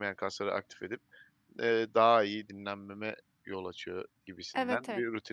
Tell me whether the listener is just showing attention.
No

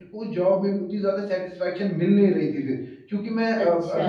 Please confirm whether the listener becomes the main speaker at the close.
No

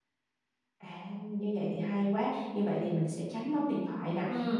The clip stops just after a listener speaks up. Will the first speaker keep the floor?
Yes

